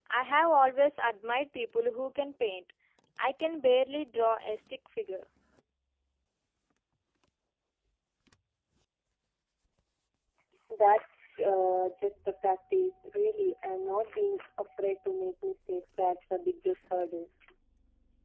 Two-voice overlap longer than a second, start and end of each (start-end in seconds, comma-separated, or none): none